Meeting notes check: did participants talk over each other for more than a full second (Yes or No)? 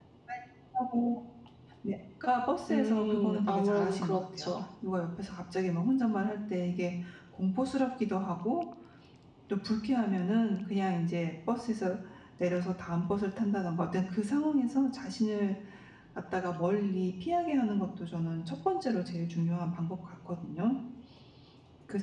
Yes